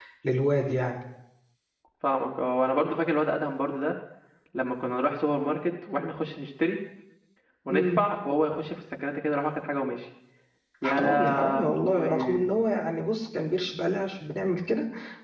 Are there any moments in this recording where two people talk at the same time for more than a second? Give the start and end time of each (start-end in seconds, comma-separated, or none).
10.9-12.5